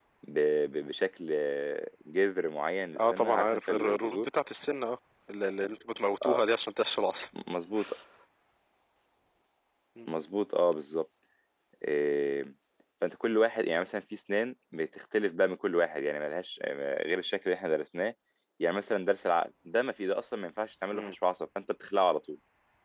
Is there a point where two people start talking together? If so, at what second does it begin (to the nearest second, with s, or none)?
3 s